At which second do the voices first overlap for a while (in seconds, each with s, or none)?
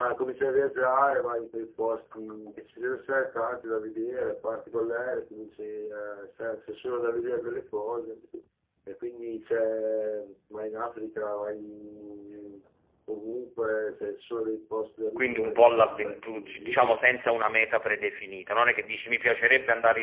15.2 s